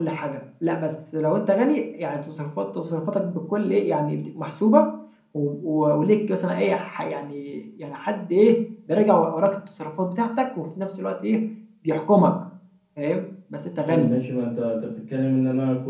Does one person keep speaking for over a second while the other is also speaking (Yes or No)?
No